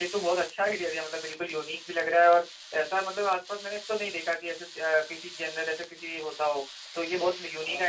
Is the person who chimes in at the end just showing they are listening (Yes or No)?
Yes